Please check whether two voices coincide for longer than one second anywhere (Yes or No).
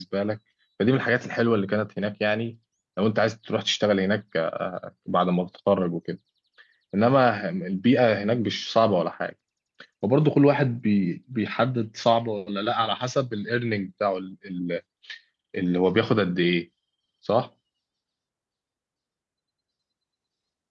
No